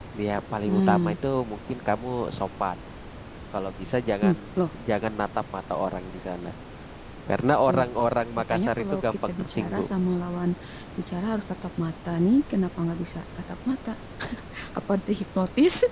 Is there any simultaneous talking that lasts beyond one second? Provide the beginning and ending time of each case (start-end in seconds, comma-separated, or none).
8.5-9.9